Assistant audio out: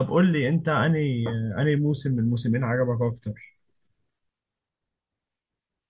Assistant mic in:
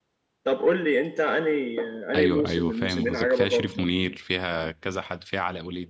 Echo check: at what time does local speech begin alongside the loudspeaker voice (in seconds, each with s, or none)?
2.2 s